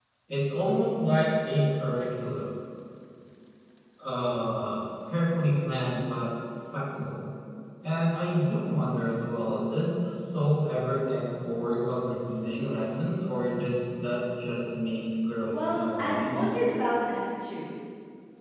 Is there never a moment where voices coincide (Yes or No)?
No